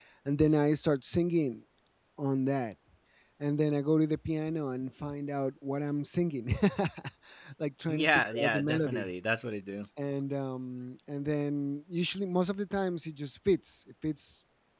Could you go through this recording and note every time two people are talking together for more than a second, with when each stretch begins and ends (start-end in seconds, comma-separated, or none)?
7.9-9.1